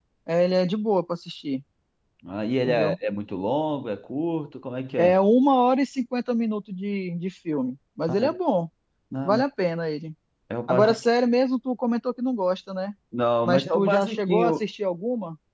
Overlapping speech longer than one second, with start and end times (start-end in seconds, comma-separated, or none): 13.4-14.7